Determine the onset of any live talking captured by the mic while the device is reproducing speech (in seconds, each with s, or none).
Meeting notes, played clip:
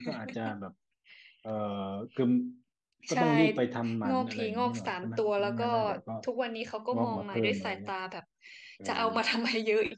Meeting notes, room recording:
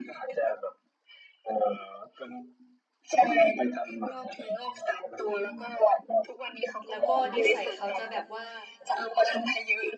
6.9 s